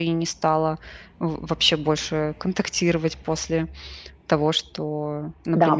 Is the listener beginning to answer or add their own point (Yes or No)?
Yes